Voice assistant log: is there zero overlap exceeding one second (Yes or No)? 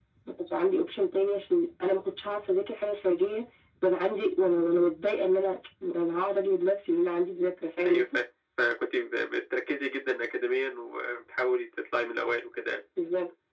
Yes